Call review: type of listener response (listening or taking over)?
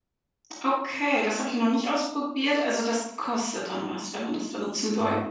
taking over